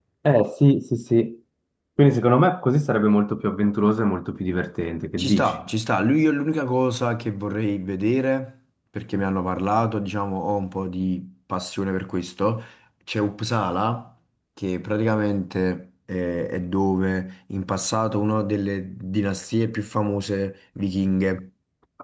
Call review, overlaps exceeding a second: none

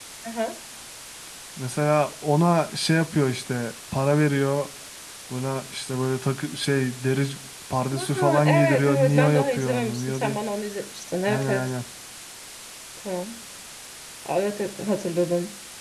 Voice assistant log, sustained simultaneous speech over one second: present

